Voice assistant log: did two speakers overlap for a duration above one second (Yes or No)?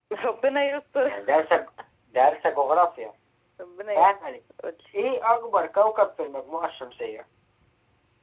No